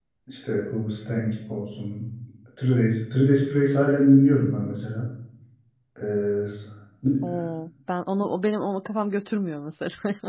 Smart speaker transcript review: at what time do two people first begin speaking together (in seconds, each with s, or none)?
none